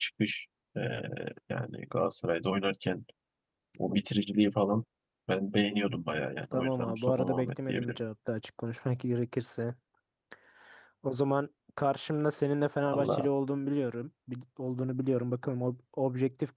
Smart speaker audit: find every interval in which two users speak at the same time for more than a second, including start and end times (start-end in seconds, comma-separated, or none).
6.5-8.0